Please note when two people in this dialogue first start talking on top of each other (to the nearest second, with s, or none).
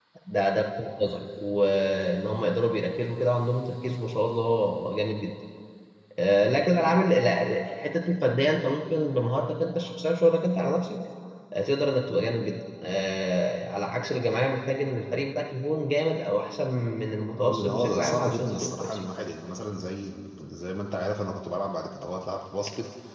17 s